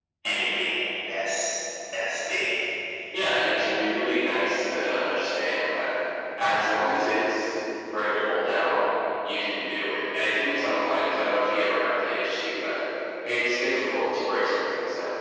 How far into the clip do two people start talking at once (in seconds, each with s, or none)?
none